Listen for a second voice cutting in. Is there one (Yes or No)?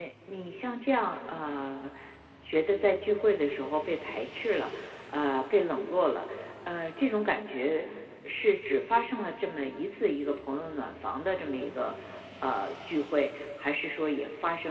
No